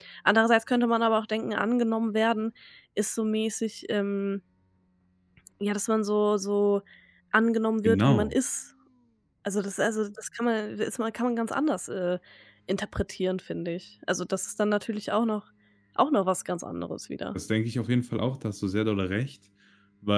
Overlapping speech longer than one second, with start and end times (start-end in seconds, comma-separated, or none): none